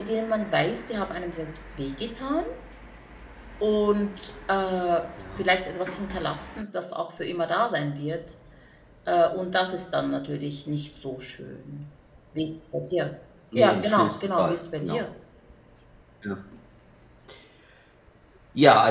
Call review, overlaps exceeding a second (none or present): present